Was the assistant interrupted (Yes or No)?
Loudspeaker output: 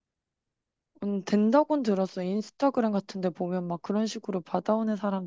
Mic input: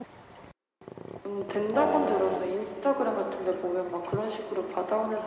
Yes